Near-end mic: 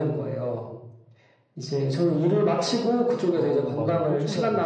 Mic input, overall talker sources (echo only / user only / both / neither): both